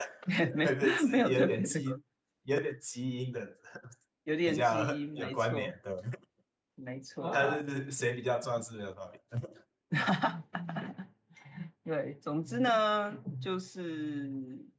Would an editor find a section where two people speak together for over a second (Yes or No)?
Yes